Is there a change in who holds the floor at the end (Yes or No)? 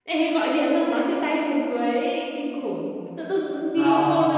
No